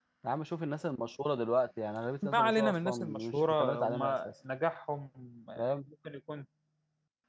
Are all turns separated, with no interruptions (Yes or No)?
No